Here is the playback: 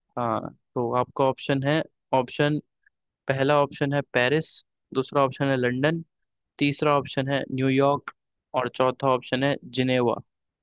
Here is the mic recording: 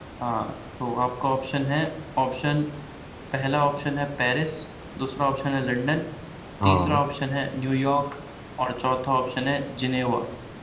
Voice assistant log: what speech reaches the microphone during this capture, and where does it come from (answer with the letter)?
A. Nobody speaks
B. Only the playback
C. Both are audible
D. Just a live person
C